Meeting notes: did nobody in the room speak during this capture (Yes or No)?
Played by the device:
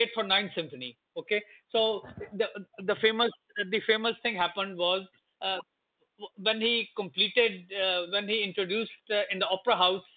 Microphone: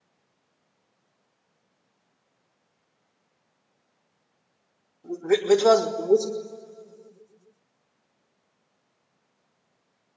No